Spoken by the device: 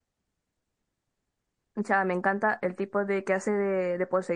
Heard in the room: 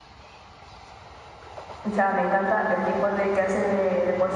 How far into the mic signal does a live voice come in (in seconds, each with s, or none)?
none